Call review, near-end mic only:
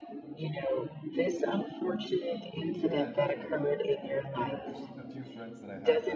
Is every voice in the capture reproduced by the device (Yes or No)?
No